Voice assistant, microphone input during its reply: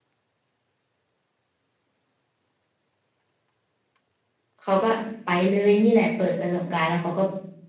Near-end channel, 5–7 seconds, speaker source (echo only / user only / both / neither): user only